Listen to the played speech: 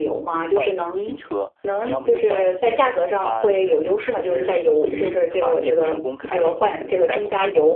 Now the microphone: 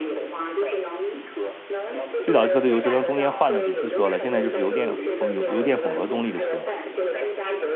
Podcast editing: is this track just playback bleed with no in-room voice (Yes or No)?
No